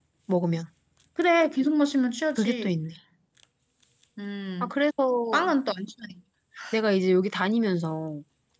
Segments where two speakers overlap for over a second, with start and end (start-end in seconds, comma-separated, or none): none